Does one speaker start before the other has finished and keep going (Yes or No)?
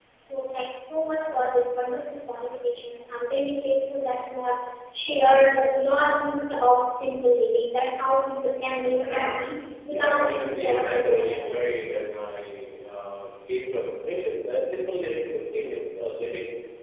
Yes